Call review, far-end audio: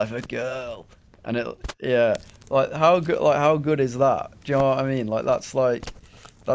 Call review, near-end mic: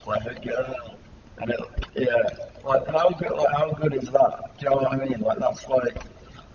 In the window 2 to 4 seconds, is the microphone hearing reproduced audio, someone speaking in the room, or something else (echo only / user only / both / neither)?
echo only